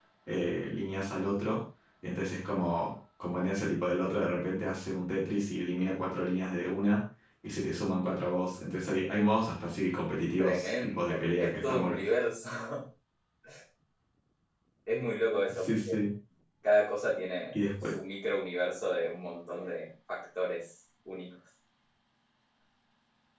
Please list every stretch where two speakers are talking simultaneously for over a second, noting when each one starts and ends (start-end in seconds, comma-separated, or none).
10.4-12.0